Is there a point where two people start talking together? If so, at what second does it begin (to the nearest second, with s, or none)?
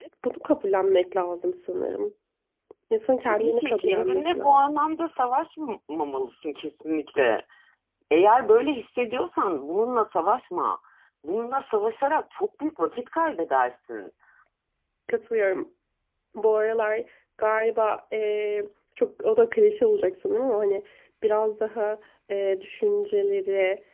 3 s